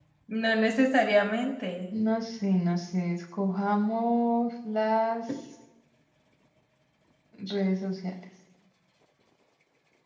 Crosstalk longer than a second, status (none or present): none